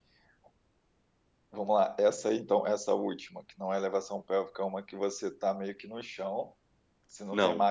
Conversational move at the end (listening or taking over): taking over